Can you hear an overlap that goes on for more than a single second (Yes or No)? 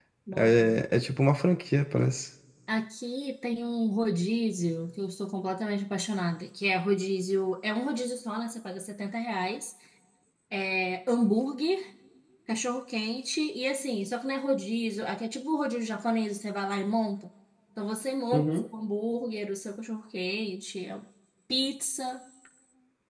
No